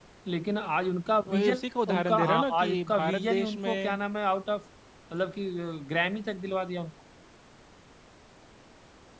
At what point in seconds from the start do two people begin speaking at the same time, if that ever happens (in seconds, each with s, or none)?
1.3 s